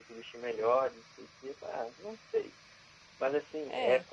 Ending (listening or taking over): listening